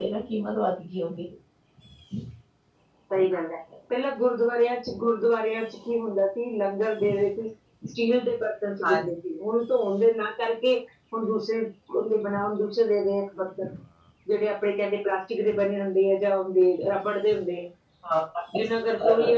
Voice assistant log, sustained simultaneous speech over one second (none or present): none